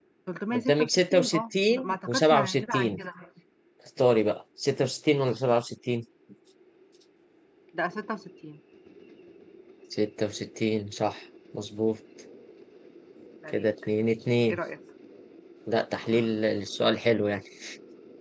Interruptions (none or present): present